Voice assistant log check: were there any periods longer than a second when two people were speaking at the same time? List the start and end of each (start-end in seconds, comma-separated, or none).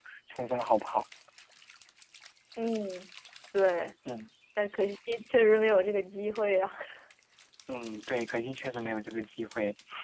none